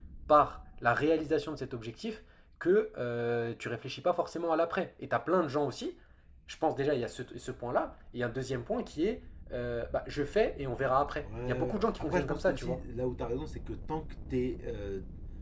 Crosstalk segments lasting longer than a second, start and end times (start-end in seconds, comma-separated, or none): 11.2-12.8